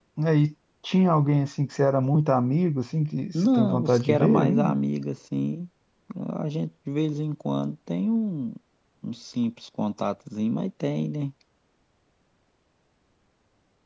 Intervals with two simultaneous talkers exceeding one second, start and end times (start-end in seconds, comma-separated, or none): 3.5-4.8